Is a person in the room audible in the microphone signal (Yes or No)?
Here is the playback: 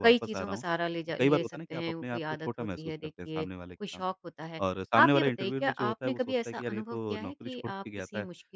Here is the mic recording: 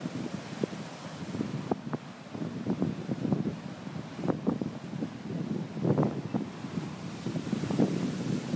No